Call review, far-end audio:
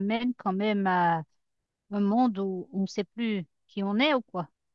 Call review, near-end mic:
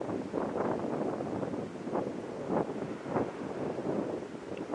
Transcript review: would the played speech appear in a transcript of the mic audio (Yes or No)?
No